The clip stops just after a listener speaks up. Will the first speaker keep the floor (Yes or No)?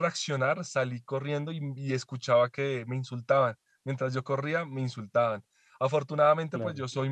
Yes